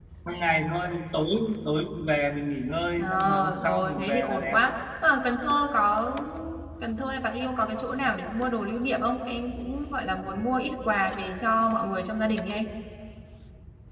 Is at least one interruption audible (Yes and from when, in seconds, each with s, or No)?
Yes, from 3.0 s